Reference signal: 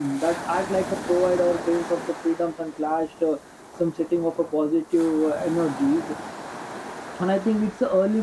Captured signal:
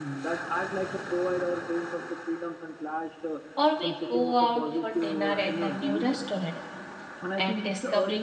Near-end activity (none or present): present